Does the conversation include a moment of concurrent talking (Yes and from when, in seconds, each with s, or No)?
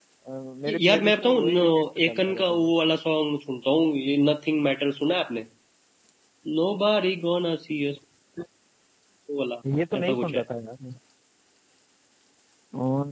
Yes, from 0.7 s